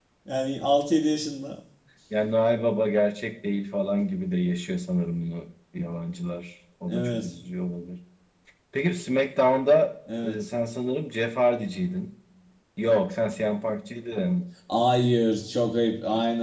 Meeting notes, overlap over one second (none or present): none